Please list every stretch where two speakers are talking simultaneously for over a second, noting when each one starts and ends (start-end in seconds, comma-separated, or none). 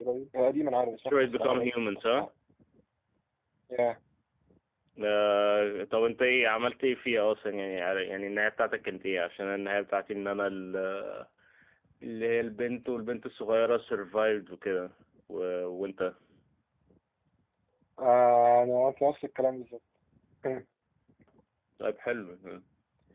1.1-2.3